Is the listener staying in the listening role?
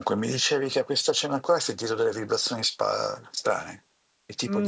No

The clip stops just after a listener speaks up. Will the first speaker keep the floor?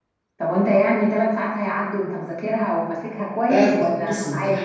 No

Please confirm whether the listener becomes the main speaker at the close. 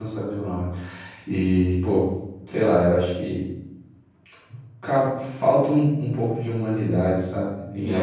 Yes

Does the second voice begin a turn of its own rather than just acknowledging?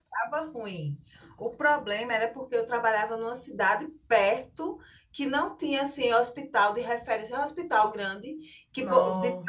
No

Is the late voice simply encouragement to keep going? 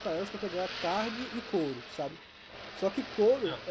Yes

